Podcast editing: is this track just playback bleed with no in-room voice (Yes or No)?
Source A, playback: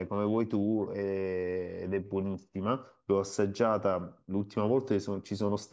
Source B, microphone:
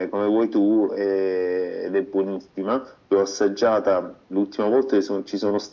Yes